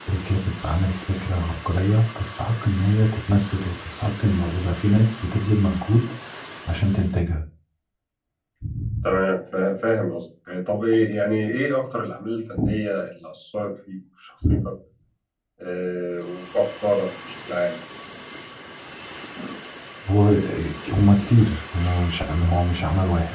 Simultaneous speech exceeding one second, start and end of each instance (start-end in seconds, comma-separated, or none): none